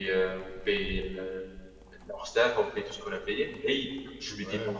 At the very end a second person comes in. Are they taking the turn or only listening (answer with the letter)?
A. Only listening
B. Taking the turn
A